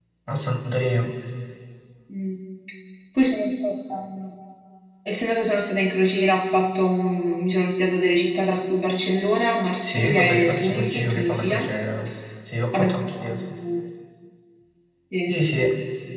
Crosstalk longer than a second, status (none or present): present